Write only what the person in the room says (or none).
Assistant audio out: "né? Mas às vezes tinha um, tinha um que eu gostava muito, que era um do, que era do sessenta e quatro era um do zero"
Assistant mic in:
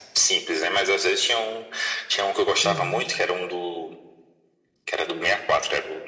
Uhum,